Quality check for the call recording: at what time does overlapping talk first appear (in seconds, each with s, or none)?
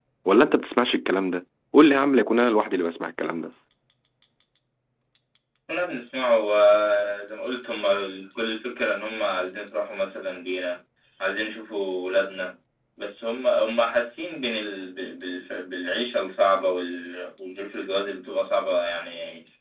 none